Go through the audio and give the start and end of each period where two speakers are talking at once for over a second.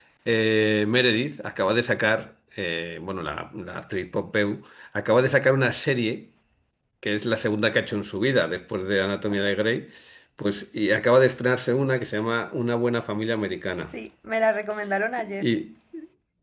none

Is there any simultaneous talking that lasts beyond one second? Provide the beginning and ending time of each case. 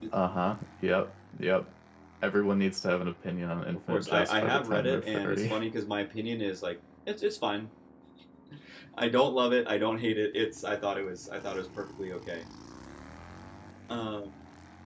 3.9-5.5

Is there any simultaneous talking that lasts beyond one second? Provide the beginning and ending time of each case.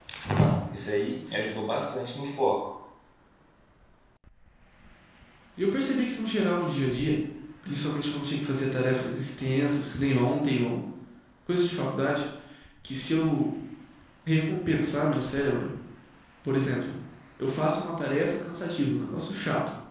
none

